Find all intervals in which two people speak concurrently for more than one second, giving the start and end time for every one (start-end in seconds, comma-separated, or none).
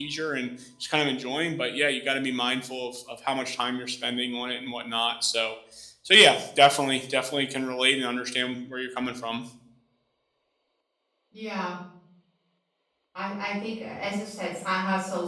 none